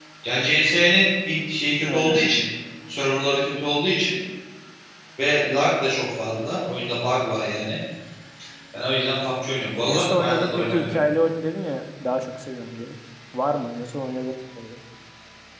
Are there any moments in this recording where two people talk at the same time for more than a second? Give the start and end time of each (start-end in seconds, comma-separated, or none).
9.9-11.1